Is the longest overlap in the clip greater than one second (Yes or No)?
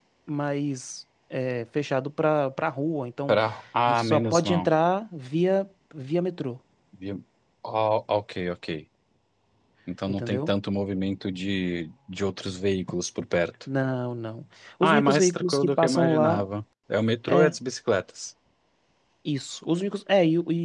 Yes